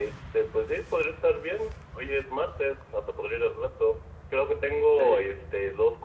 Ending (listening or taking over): listening